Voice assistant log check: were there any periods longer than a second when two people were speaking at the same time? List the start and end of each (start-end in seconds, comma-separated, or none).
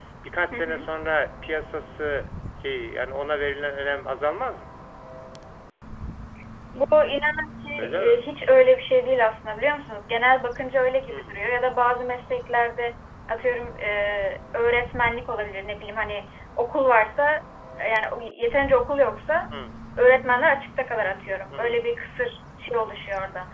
none